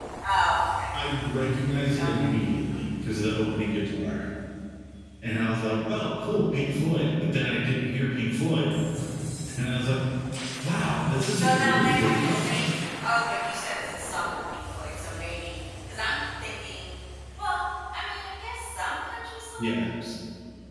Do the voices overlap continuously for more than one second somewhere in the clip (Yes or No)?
Yes